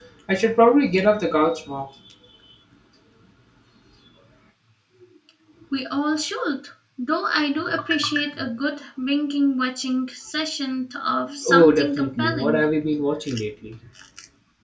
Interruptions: present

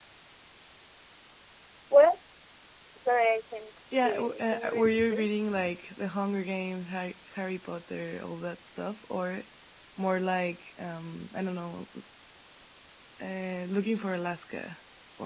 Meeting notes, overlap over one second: present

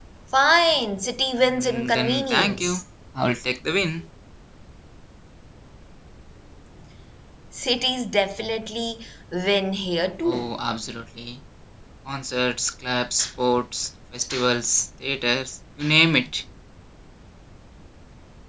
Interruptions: present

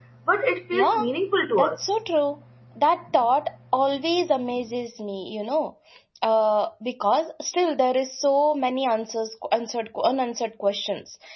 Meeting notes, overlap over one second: none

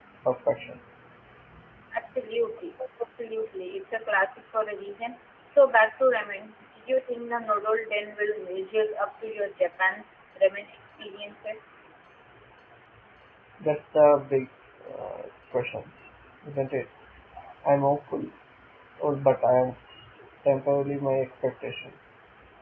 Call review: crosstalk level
none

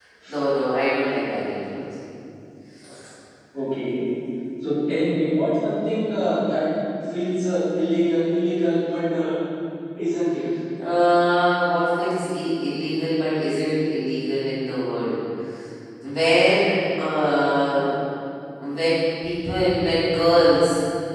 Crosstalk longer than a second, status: none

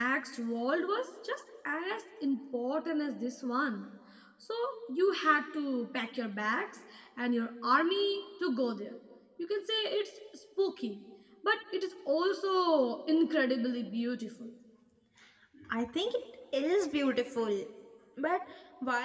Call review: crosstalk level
none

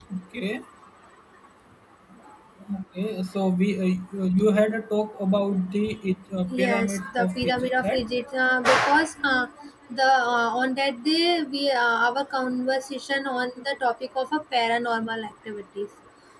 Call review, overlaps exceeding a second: present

